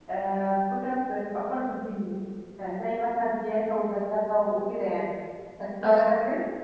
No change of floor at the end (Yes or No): Yes